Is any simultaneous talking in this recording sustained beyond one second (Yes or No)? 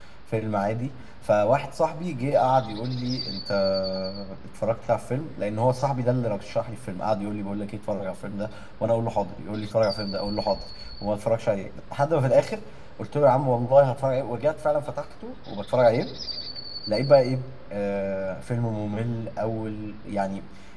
No